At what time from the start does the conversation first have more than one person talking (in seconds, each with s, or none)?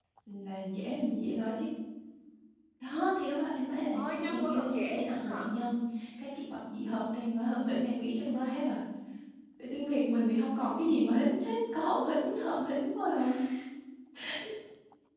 3.9 s